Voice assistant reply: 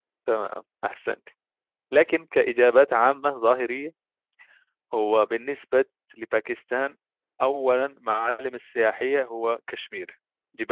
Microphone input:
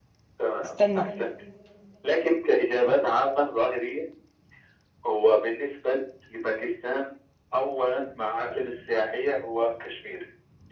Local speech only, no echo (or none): استنى